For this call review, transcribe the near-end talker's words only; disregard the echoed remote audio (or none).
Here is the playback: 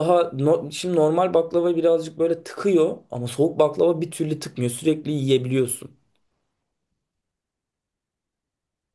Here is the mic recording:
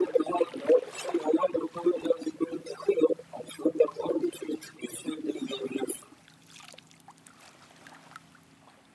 none